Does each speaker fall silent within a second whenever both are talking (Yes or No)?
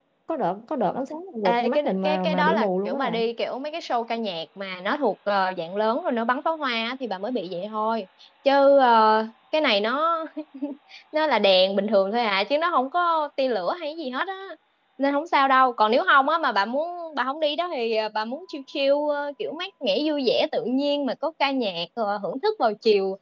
No